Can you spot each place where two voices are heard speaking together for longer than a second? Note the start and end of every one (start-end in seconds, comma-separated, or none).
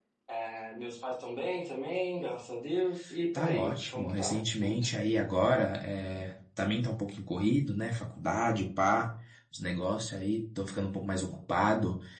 3.4-4.9